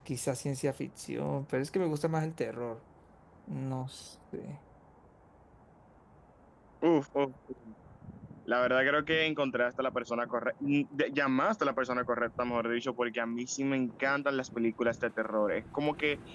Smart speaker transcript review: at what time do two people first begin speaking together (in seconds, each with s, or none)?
none